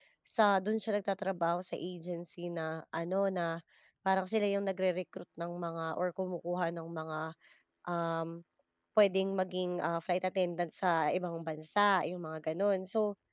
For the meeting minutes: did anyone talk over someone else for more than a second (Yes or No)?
No